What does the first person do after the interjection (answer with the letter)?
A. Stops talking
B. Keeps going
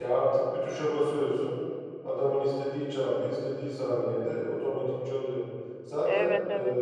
B